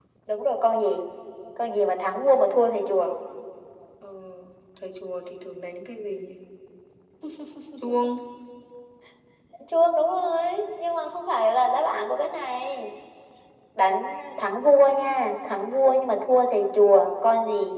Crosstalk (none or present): none